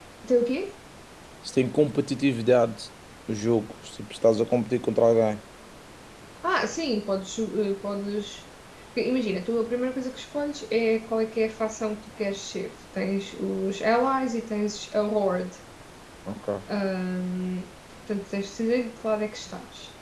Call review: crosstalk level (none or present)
none